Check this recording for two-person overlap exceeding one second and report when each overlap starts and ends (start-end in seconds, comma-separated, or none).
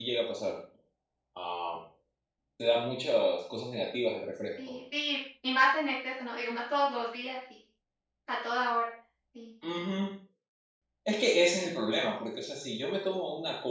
none